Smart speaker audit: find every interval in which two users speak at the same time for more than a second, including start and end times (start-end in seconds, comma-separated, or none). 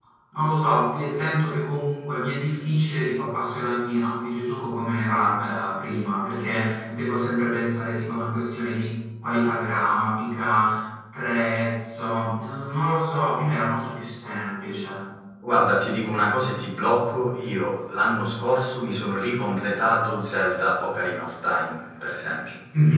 none